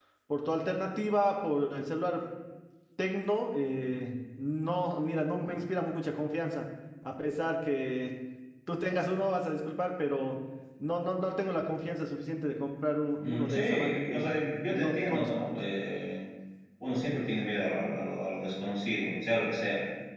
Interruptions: present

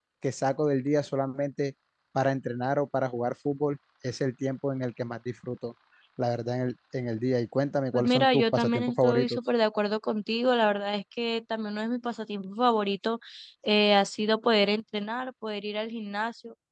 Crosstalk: present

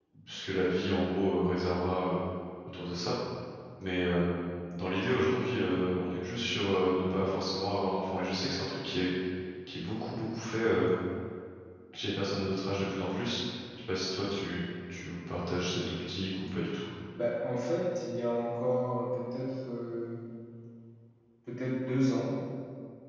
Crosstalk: none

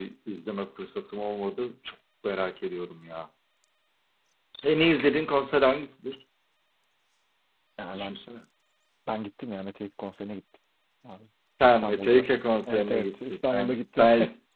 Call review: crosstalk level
present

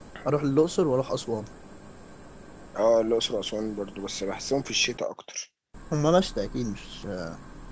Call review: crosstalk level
none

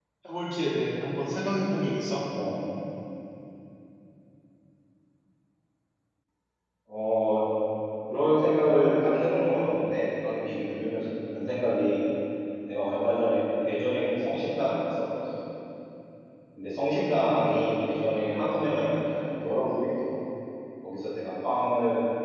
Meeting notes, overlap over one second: none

